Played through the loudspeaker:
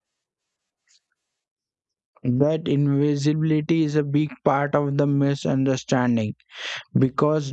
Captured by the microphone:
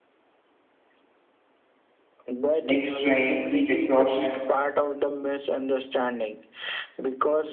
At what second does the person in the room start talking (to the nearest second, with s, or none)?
3 s